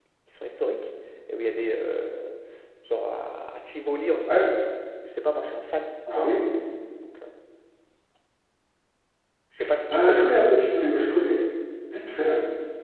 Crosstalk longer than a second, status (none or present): none